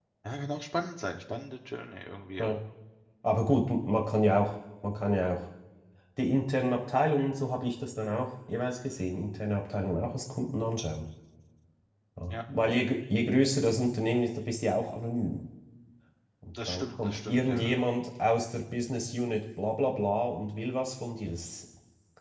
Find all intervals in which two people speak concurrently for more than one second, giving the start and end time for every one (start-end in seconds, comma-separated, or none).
16.5-17.8